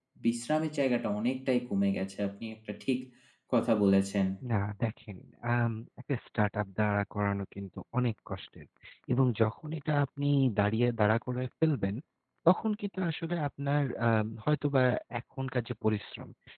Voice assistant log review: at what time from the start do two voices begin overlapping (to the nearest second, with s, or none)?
none